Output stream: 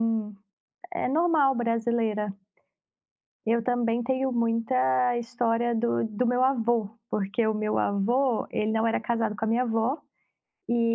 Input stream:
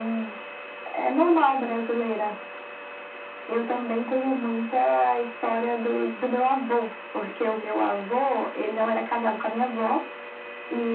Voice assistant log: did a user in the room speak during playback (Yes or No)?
No